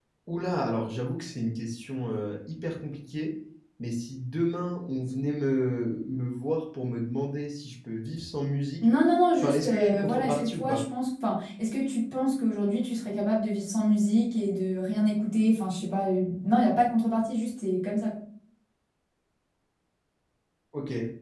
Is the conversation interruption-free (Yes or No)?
No